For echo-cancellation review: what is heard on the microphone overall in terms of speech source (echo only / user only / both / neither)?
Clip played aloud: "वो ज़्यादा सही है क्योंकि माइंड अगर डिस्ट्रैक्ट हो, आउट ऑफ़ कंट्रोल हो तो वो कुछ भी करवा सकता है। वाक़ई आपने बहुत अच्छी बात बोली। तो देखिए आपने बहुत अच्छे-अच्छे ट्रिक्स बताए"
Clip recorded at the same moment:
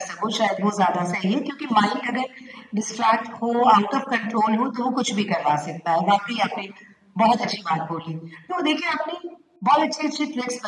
echo only